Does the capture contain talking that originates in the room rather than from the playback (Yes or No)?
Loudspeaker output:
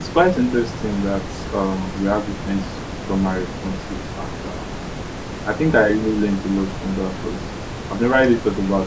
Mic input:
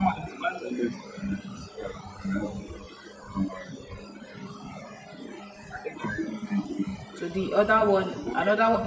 Yes